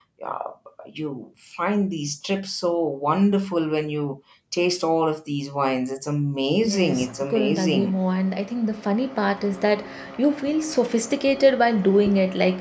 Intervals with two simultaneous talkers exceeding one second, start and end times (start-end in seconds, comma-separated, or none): 6.6-8.0